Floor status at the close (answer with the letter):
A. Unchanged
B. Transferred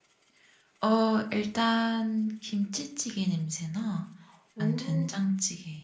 A